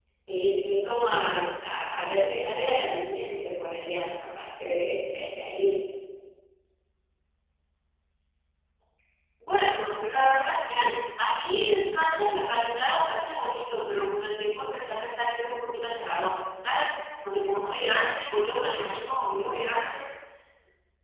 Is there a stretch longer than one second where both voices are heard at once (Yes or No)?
No